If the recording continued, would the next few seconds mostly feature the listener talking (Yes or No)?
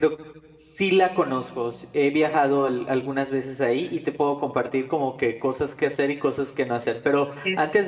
No